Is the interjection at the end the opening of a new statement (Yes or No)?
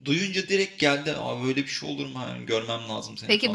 Yes